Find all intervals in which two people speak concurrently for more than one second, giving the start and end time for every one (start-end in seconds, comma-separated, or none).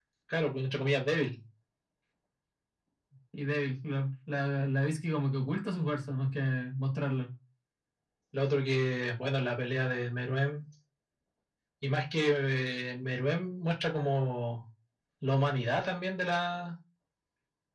none